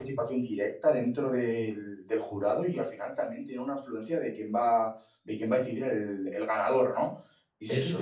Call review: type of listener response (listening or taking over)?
listening